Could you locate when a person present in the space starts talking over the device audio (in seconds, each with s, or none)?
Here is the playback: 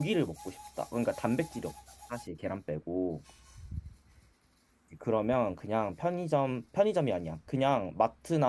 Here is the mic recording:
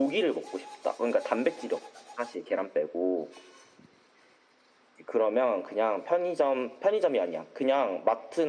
none